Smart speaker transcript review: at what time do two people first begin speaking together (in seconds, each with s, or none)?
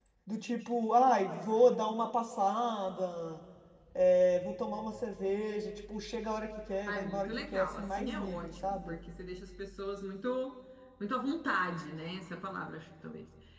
6.9 s